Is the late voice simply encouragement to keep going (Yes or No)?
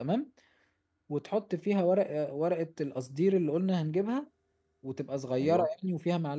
Yes